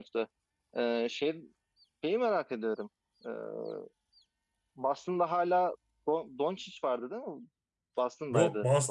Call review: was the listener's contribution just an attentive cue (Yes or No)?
No